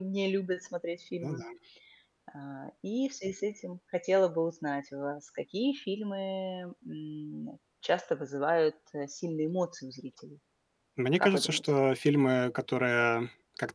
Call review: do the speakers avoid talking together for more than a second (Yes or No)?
Yes